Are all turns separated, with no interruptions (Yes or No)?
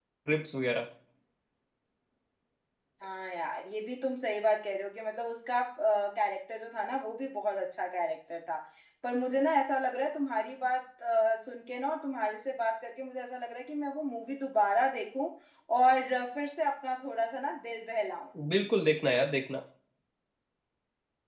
Yes